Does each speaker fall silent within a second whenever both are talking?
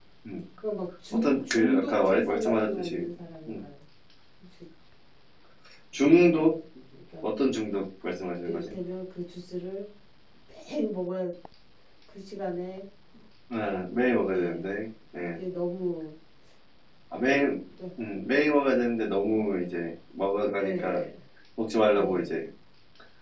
No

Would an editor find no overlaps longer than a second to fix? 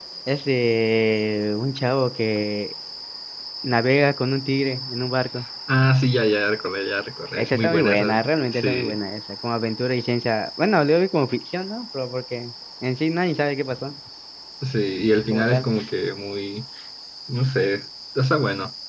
No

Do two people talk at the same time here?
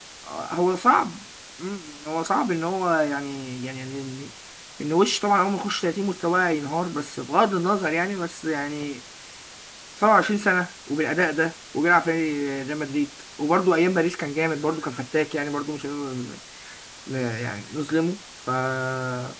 No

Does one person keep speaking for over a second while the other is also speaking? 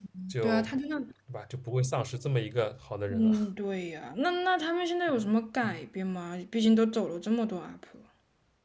No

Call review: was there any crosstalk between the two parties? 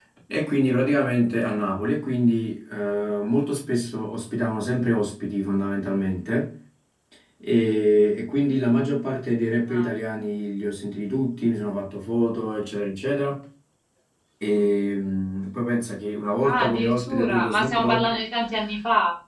Yes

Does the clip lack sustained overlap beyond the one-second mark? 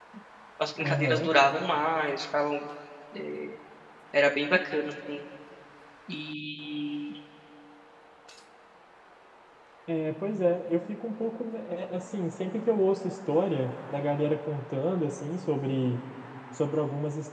Yes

